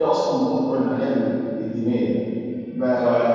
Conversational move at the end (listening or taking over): listening